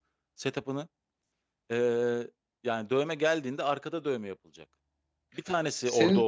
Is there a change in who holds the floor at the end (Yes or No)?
No